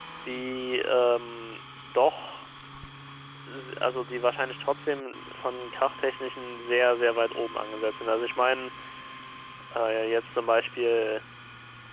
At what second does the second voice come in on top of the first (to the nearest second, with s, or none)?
none